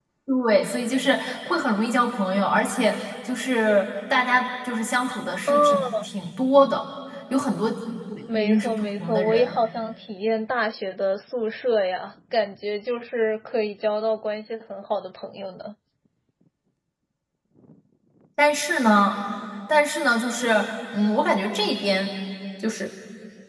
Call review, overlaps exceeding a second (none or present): present